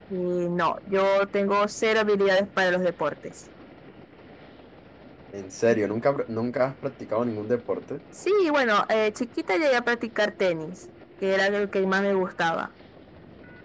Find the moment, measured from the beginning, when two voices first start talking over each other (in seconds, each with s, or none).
none